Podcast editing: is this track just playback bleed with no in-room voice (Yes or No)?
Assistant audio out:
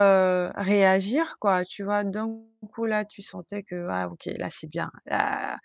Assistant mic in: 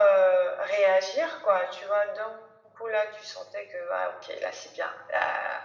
Yes